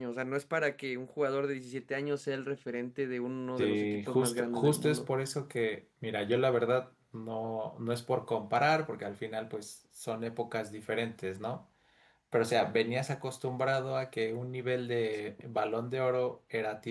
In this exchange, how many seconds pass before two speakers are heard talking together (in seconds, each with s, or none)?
3.6 s